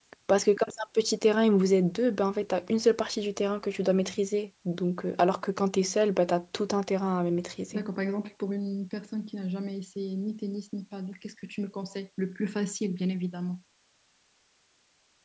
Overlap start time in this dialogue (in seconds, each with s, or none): none